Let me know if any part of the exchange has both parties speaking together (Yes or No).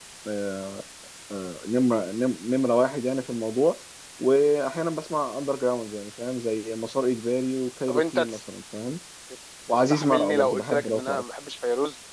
Yes